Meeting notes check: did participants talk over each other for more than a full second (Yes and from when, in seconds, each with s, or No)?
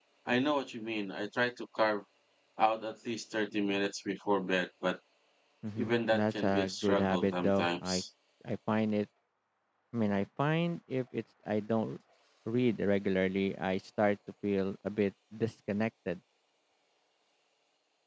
Yes, from 5.8 s